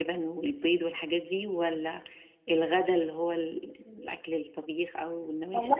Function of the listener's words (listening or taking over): taking over